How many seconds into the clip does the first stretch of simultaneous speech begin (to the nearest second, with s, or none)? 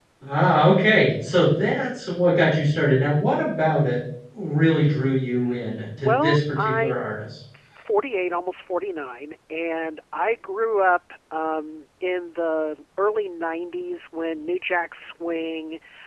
6 s